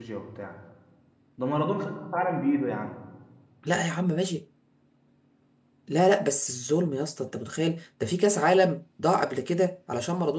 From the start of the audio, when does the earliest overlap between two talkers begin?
none

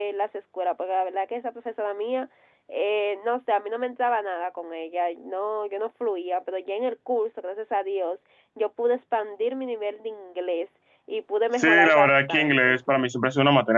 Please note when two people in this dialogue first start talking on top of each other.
12 s

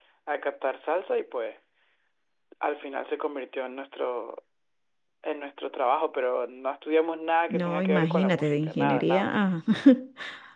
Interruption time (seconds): 7 s

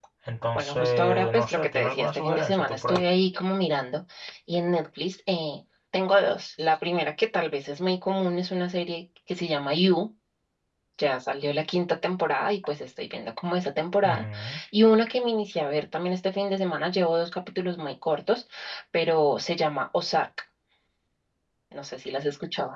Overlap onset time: 1 s

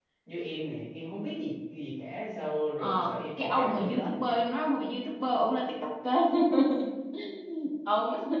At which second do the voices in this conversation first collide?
3 s

